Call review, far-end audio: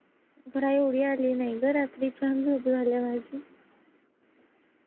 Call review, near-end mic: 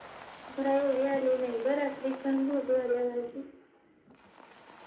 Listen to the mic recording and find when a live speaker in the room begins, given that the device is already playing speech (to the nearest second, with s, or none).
none